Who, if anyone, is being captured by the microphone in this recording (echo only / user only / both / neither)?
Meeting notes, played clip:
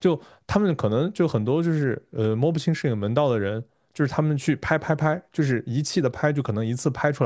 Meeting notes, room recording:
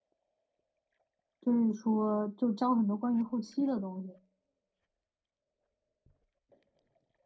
user only